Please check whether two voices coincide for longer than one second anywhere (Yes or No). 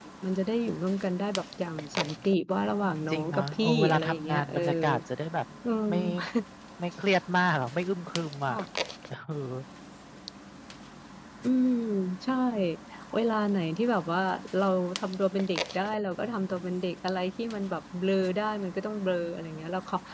Yes